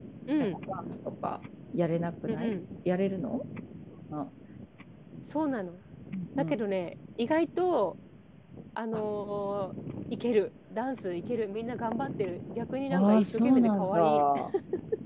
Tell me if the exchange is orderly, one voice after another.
No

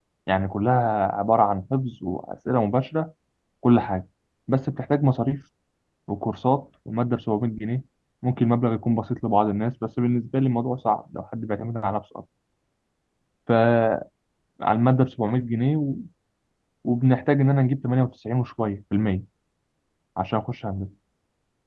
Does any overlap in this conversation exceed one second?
No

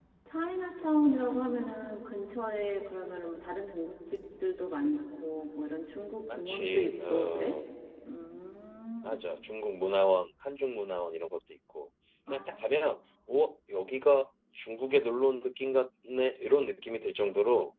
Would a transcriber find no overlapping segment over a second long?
No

